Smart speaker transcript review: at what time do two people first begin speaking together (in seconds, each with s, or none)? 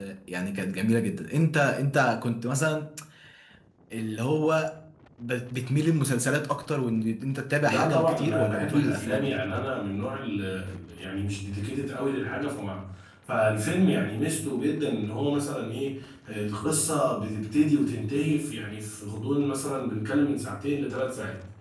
7.6 s